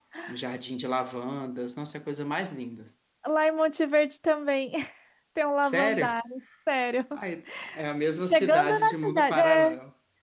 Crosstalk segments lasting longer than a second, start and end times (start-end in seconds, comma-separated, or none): 8.2-9.7